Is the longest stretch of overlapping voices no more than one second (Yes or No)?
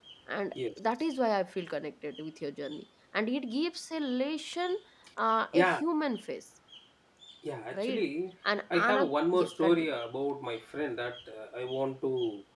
No